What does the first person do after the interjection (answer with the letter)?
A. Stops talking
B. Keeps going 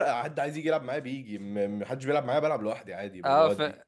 A